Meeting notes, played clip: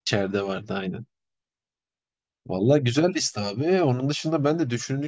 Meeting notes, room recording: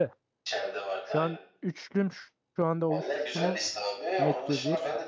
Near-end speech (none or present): present